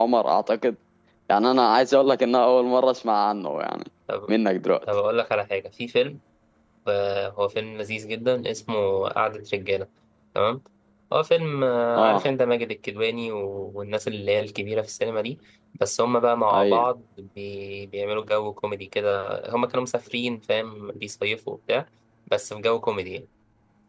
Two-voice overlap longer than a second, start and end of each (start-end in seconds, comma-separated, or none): none